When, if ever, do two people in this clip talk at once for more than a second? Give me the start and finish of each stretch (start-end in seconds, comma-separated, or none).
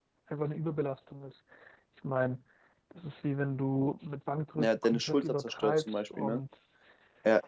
4.6-6.4